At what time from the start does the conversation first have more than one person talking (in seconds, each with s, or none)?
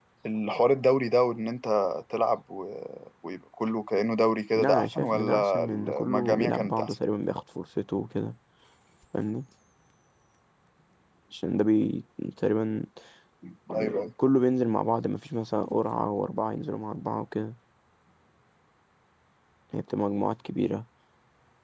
4.5 s